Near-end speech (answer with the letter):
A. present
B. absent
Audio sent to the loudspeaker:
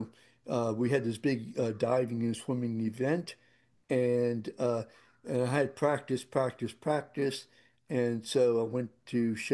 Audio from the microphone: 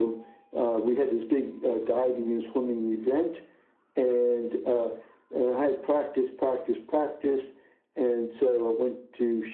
B